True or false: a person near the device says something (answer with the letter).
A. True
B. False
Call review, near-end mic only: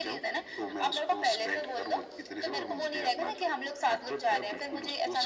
B